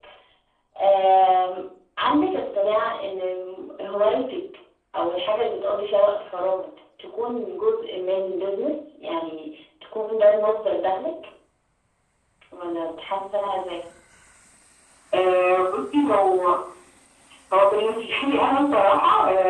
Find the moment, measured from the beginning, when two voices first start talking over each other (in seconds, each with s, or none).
none